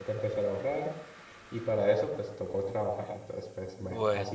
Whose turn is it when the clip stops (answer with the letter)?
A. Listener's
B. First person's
B